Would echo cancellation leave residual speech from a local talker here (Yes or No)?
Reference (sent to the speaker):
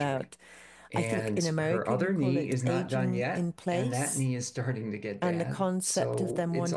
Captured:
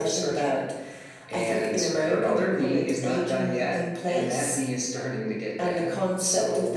No